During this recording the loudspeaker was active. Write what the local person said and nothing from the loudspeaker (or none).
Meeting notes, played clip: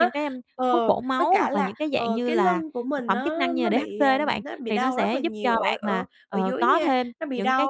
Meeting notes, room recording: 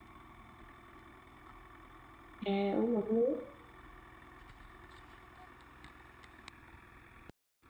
à, uống ngụm nước,